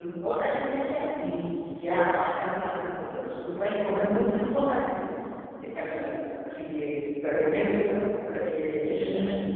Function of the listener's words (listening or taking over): taking over